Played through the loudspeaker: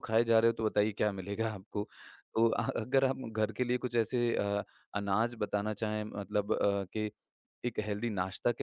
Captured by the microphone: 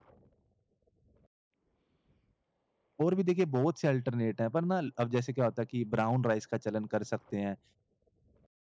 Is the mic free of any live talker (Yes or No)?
No